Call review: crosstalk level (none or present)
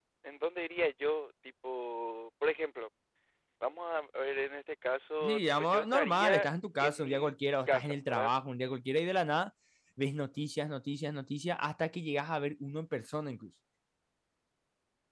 present